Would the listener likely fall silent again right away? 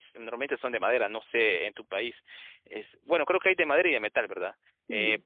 Yes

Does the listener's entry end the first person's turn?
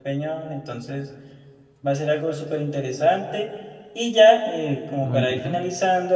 No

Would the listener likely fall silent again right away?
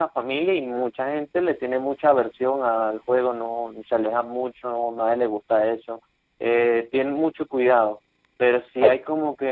Yes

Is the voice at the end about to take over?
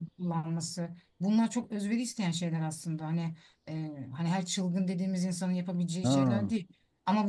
No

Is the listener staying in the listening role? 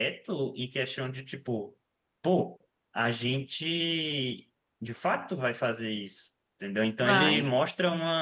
Yes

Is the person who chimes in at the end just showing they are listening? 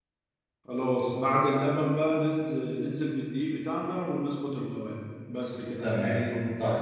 No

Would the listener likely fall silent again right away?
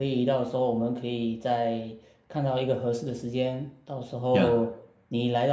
Yes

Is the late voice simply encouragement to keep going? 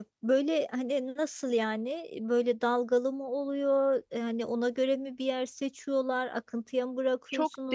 No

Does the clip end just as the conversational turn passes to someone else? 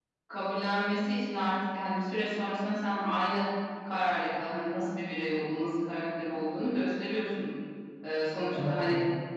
No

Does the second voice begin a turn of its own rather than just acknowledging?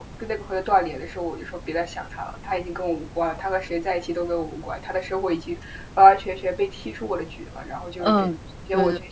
Yes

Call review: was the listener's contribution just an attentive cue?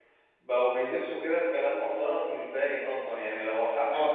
No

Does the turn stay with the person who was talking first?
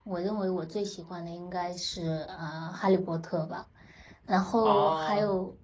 Yes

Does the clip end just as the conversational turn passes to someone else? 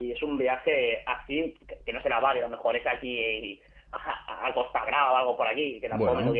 No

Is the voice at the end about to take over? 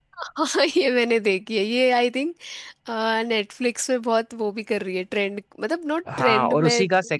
Yes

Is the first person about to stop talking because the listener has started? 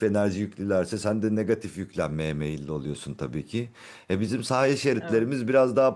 No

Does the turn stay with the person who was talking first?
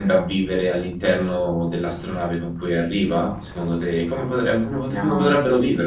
No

